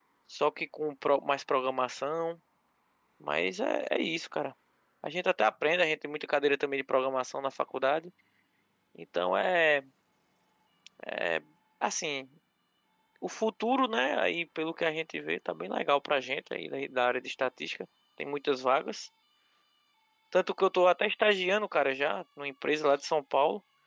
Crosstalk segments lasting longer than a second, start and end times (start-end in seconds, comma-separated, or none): none